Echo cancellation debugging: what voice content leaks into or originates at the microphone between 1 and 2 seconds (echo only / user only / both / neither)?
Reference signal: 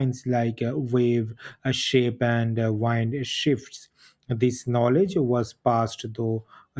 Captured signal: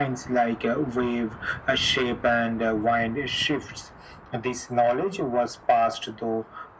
echo only